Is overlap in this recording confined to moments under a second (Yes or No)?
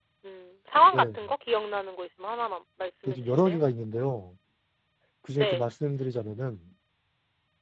Yes